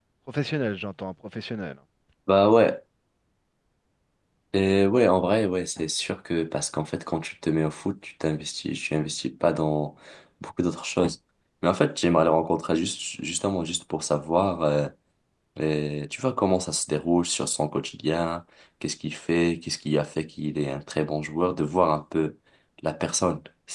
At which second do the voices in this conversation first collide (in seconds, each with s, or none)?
none